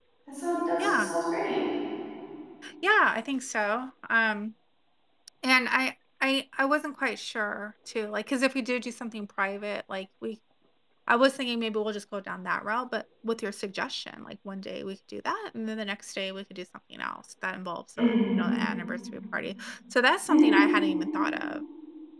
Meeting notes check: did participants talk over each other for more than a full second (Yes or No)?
No